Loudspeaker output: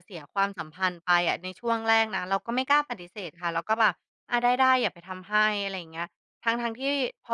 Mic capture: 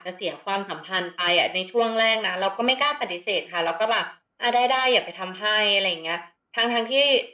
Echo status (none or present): present